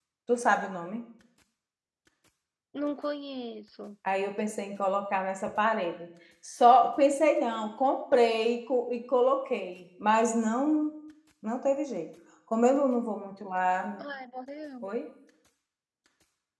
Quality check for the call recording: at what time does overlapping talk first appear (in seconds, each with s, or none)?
none